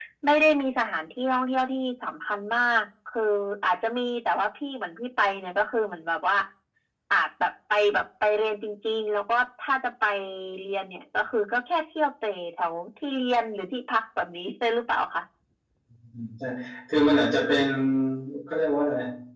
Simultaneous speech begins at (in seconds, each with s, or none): none